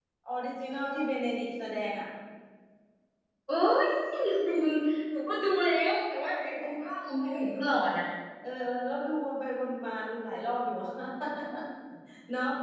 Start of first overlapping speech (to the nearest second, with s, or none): none